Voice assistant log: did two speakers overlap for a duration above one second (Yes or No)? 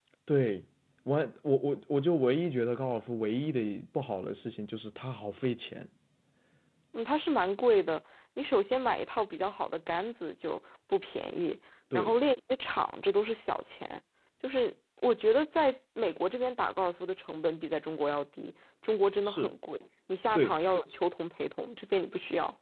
No